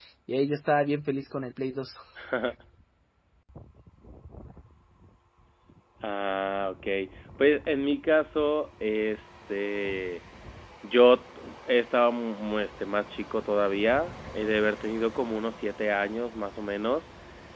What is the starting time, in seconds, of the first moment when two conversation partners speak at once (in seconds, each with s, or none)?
none